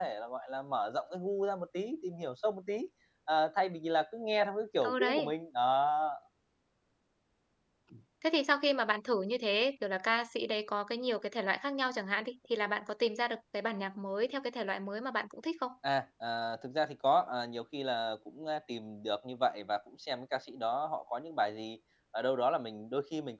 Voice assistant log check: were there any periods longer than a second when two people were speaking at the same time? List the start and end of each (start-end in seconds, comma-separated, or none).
none